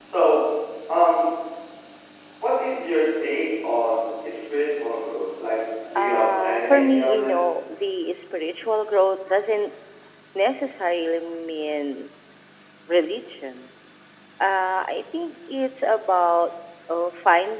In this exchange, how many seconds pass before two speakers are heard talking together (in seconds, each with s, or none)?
6.0 s